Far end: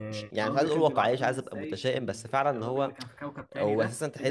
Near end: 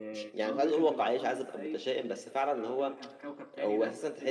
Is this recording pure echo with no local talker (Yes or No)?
Yes